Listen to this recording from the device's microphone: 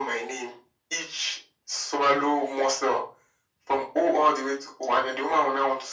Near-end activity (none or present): none